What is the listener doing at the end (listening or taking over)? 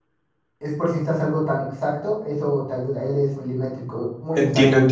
taking over